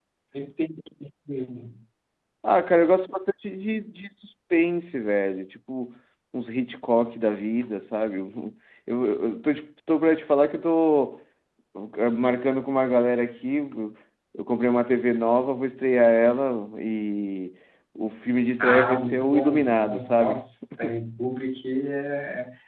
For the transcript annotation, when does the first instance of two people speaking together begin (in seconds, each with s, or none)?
18.6 s